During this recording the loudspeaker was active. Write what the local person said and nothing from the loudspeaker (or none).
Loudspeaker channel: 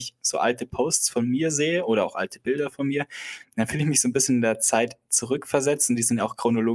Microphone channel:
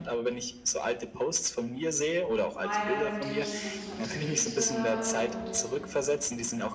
Meinungen, die ich so vertrete.“ Und,